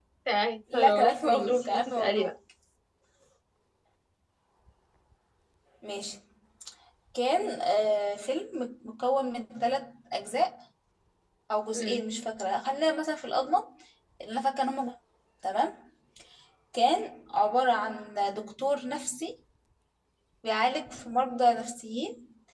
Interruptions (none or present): present